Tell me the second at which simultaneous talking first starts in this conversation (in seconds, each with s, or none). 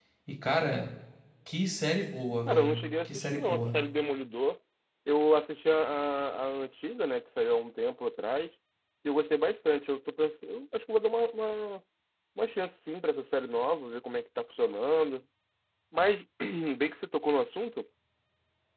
2.5 s